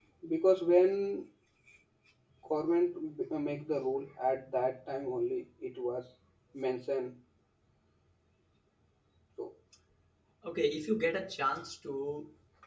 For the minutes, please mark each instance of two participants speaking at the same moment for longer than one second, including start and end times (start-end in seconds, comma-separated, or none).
none